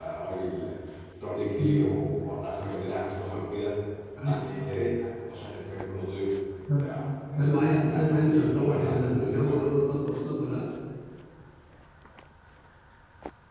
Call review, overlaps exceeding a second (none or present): present